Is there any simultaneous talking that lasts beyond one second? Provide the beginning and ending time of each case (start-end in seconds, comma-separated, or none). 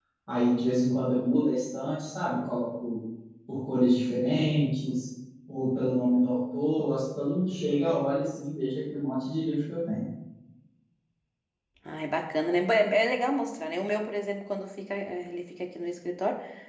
none